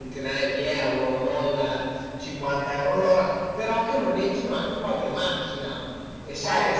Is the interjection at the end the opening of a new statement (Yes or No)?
Yes